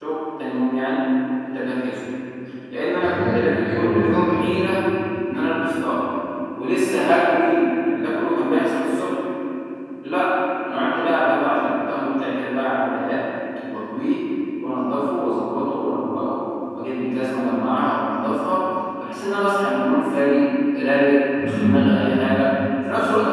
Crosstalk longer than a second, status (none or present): present